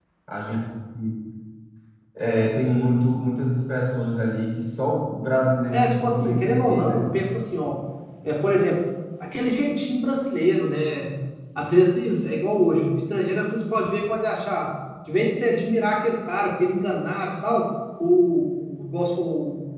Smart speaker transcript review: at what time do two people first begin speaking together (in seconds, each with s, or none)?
5.7 s